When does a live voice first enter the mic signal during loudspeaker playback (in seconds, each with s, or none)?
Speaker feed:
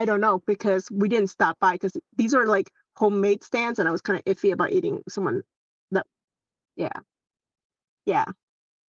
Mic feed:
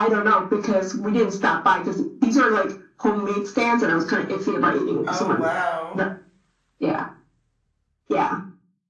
5.0 s